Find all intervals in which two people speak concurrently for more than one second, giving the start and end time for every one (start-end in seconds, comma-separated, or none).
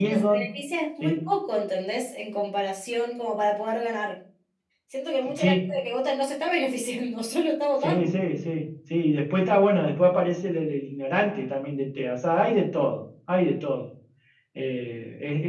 none